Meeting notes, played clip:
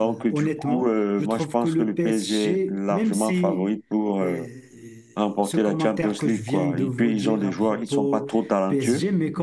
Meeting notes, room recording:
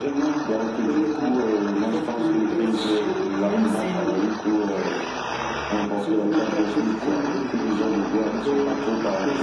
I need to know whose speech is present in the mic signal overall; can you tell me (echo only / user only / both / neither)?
echo only